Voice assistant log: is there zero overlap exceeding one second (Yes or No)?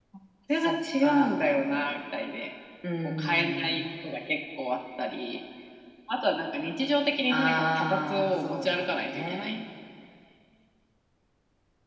No